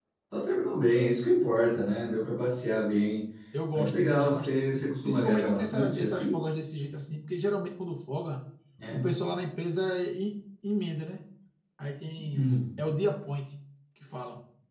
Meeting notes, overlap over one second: present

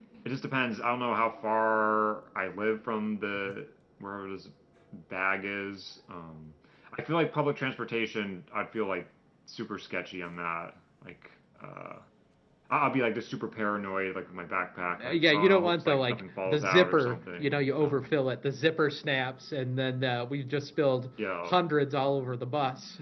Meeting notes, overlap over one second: present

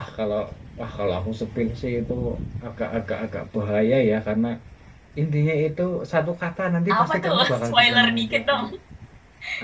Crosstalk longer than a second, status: present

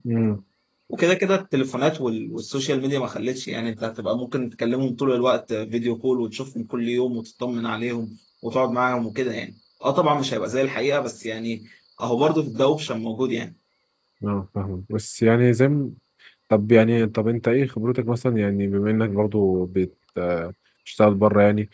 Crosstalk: none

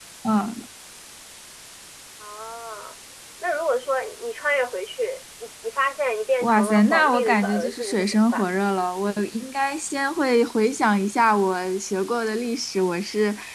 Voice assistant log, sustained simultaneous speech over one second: present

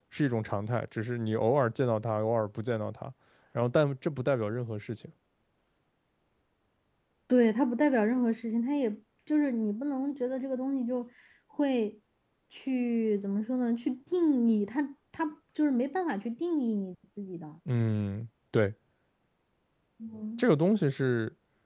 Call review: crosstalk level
none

